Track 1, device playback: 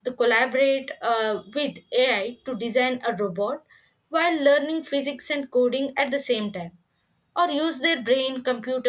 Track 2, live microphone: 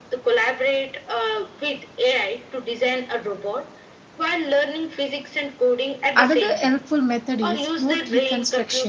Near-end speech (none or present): present